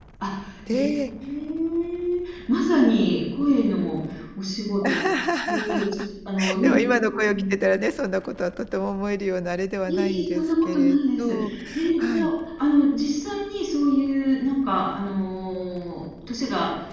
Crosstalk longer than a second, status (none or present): present